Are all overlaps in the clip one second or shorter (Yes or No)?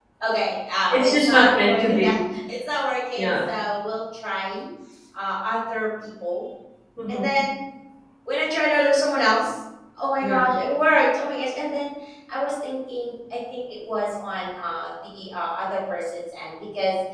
No